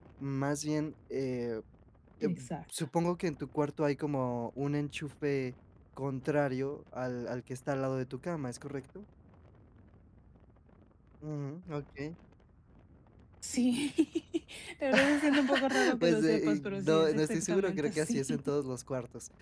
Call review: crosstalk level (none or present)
present